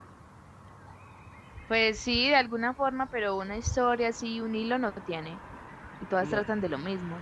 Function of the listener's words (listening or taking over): listening